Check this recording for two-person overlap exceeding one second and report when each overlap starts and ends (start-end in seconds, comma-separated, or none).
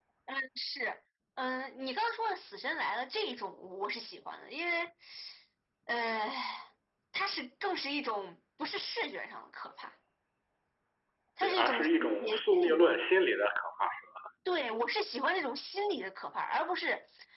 11.4-13.0